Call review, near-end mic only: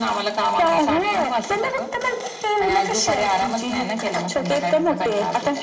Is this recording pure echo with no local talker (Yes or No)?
Yes